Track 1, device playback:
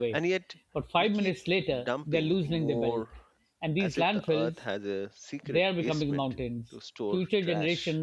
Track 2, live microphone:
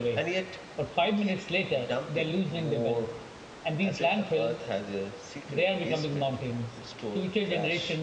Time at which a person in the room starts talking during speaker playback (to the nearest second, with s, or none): none